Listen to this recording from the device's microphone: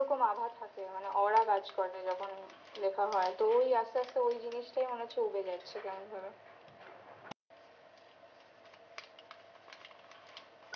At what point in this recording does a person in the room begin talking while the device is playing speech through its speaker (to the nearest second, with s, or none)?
none